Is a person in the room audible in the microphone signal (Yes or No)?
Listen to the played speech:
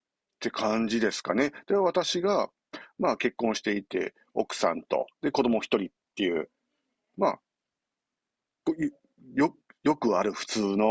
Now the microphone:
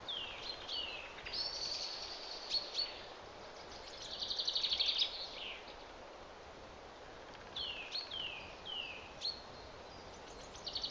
No